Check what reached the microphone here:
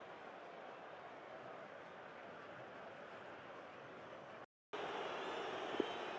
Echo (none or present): none